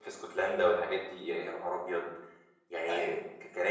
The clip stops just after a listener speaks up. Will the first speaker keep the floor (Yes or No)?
Yes